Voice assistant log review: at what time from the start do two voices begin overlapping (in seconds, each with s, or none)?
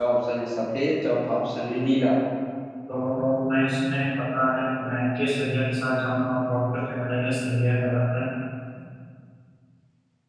none